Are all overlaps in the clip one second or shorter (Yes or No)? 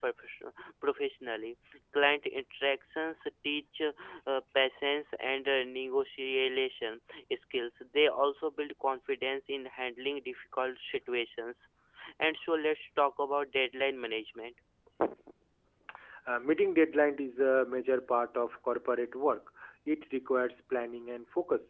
Yes